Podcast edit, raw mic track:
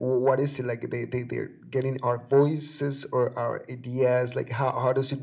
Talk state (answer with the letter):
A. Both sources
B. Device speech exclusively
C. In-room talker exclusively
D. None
B